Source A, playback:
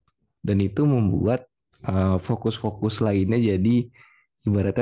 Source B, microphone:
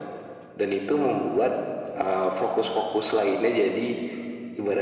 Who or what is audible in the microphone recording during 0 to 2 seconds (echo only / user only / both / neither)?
echo only